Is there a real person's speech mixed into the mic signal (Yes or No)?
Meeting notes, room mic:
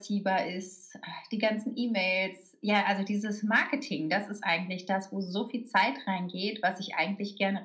No